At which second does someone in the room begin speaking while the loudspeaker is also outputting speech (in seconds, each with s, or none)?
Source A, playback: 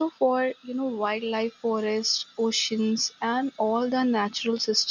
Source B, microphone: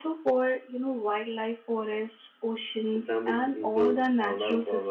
2.9 s